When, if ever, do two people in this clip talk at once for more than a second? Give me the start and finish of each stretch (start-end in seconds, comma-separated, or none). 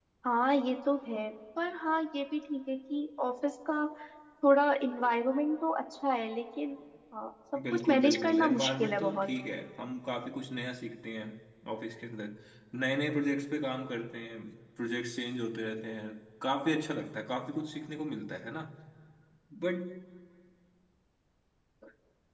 7.7-9.3